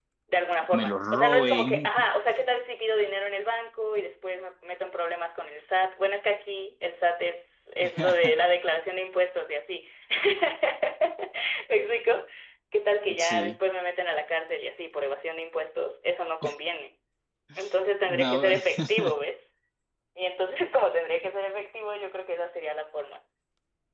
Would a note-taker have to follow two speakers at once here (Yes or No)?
Yes